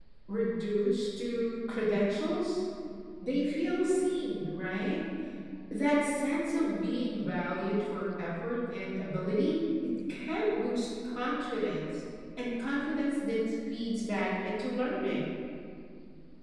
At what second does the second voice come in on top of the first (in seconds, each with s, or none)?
none